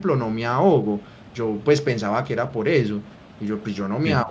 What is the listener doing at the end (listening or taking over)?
listening